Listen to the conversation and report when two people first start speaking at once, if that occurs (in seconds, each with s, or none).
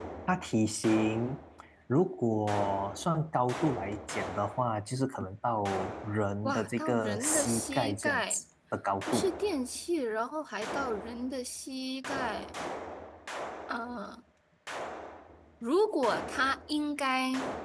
6.4 s